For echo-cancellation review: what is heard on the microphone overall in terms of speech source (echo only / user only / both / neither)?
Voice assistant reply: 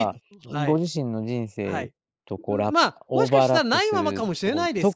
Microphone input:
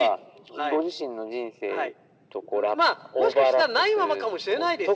echo only